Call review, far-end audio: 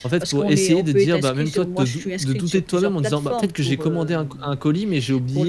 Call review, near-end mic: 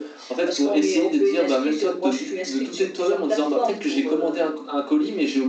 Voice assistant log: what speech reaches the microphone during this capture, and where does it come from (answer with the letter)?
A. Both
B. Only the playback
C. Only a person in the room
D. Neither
B